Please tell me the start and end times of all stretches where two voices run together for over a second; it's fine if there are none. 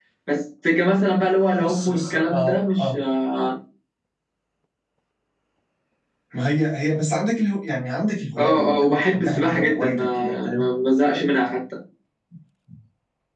1.6-2.9, 8.4-10.6

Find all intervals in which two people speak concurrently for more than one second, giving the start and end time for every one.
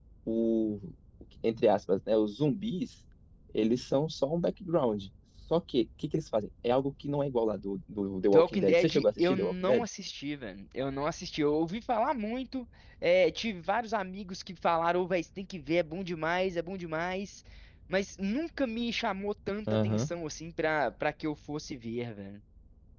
8.3-9.9

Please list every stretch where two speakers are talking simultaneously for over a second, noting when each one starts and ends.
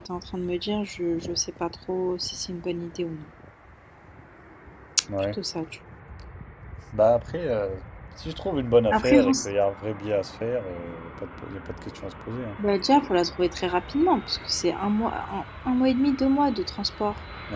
none

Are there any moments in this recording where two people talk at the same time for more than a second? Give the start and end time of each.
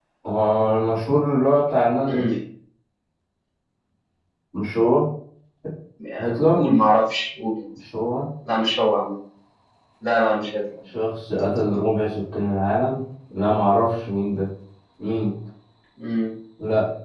none

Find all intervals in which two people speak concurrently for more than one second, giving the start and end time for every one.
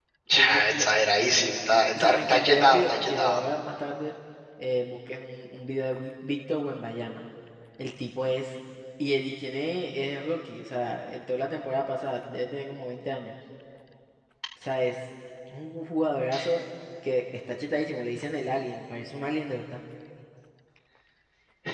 2.0-3.4

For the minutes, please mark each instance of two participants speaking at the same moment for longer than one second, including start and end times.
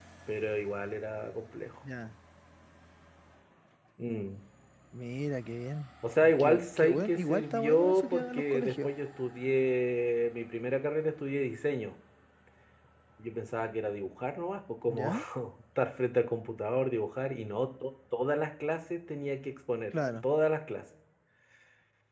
6.4-8.9

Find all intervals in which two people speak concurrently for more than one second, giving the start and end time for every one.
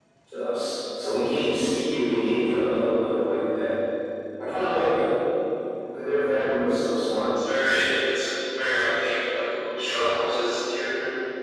none

